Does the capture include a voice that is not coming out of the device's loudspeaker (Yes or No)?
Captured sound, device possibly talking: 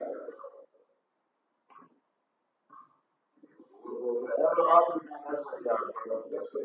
No